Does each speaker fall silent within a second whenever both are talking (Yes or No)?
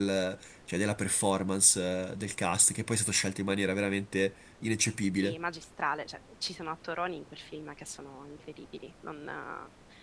Yes